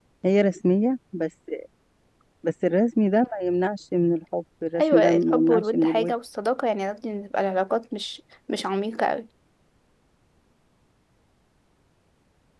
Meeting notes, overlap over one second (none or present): present